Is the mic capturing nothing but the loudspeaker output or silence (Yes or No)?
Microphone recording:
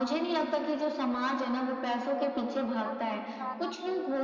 No